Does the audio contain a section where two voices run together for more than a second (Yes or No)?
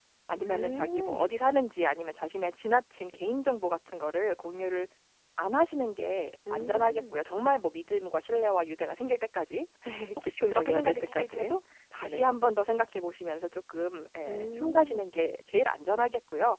Yes